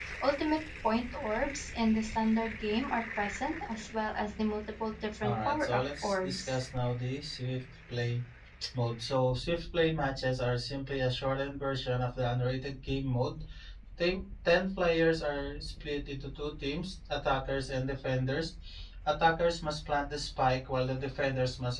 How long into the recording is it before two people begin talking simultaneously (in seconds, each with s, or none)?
5.2 s